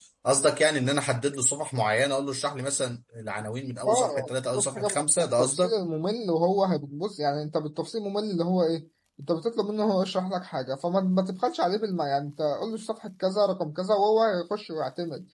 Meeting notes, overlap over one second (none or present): present